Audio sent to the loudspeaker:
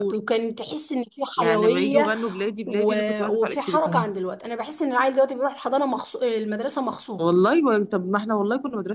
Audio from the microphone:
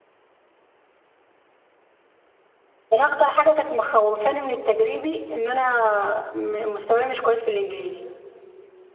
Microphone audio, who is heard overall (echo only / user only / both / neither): user only